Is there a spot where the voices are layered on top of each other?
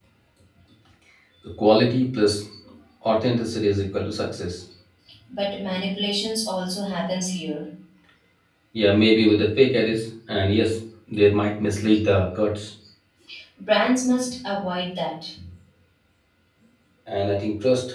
No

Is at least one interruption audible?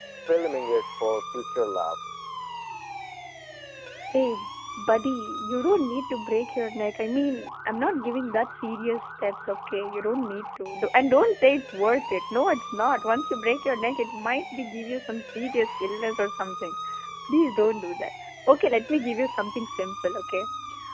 No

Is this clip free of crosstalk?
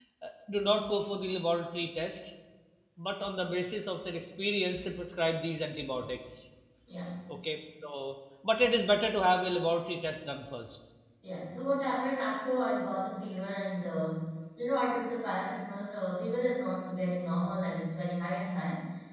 Yes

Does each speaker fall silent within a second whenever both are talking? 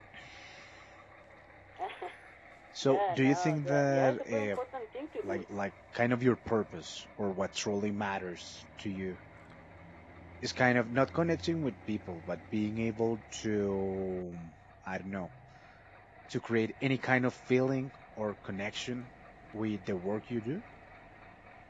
No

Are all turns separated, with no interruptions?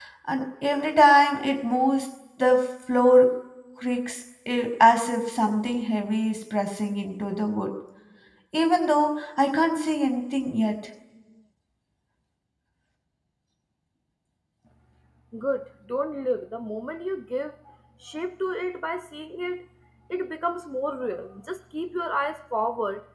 Yes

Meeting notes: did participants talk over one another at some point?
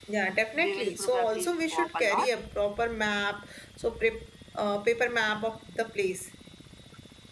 Yes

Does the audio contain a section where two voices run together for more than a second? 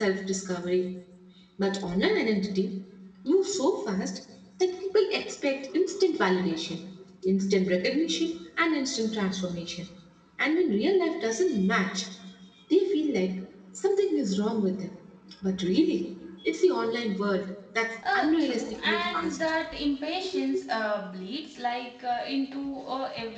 Yes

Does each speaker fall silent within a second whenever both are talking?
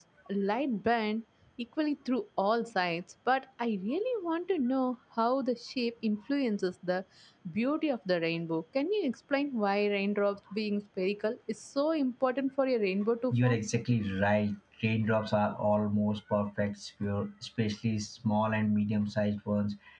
Yes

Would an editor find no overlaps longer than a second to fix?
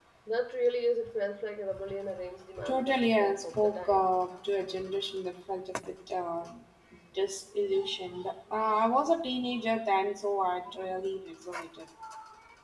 No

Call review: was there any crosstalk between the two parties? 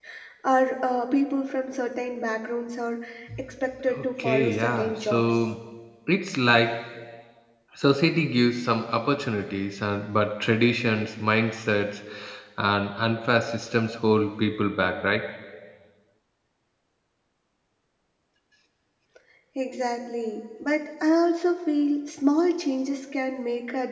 Yes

